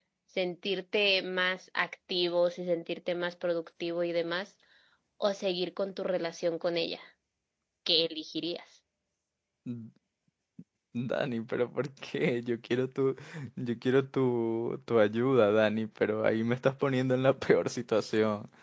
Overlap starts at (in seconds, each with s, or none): none